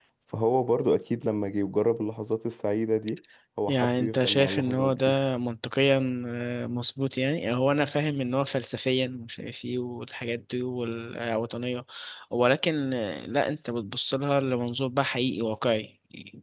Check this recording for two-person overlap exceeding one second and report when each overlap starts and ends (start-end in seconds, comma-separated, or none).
3.7-5.1